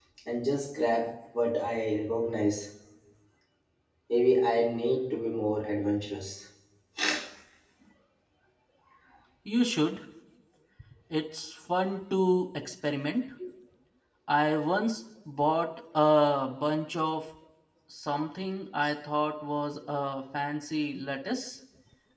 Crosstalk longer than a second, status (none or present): none